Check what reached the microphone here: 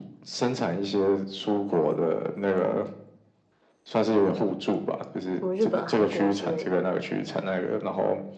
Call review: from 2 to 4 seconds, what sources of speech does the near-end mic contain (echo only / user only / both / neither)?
echo only